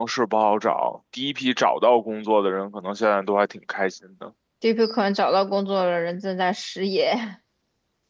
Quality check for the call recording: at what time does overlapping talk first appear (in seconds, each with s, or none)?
none